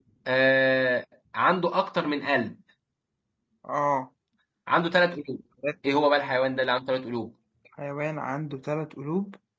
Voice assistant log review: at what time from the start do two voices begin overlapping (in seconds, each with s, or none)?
none